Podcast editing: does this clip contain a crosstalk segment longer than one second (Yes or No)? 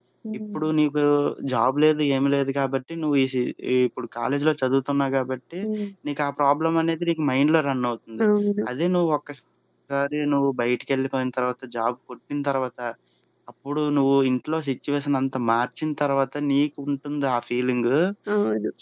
No